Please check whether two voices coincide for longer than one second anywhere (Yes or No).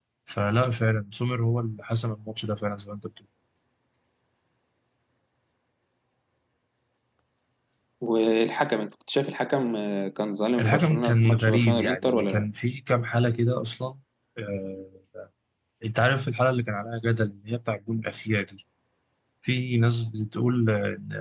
Yes